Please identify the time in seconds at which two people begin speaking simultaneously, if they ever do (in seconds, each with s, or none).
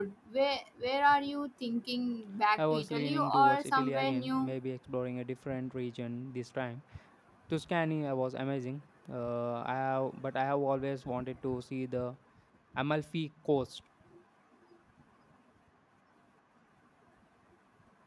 2.6 s